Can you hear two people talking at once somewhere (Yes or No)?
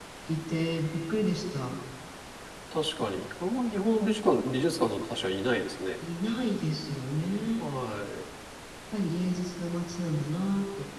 No